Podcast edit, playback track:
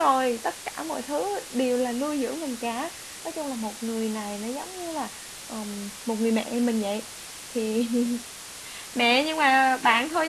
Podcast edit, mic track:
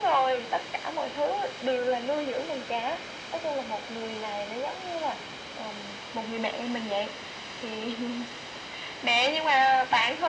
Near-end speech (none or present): none